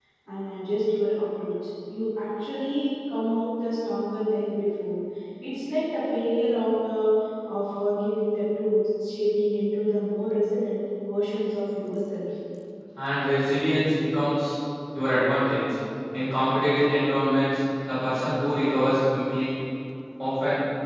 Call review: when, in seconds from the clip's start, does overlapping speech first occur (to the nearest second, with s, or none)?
none